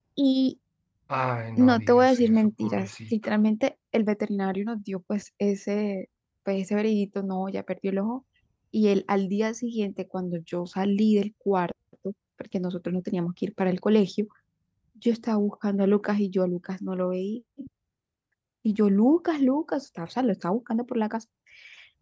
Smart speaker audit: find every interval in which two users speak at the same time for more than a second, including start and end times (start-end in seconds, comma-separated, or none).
1.6-3.1